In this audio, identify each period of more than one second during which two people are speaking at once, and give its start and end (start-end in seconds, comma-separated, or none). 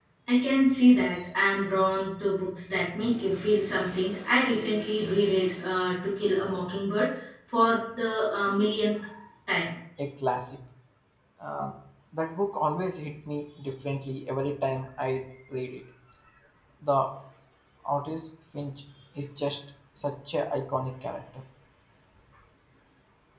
none